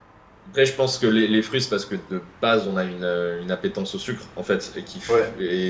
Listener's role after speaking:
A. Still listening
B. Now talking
A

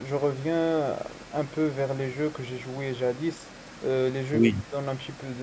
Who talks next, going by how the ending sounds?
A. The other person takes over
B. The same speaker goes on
B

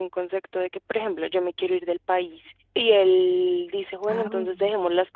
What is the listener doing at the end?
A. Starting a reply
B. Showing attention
B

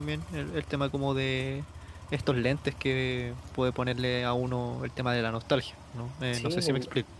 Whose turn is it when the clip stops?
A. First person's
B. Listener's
B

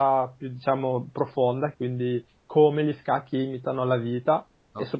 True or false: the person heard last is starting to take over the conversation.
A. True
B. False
B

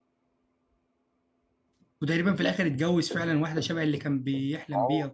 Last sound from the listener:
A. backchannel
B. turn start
B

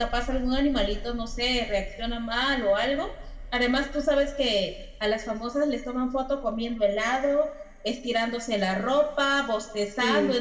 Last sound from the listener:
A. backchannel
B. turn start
A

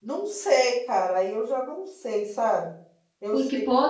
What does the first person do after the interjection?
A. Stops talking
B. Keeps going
A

